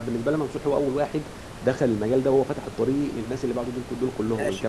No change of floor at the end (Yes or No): No